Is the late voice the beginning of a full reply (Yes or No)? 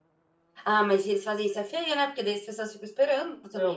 Yes